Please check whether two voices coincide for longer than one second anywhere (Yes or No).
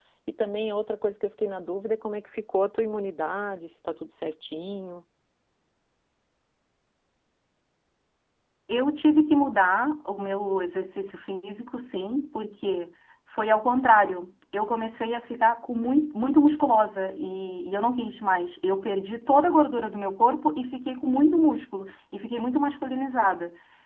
No